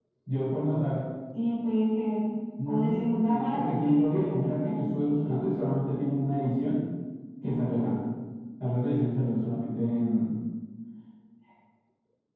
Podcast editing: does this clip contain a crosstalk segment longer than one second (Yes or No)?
Yes